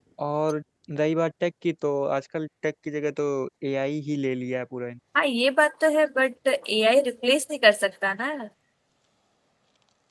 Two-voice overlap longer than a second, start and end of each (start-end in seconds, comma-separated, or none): none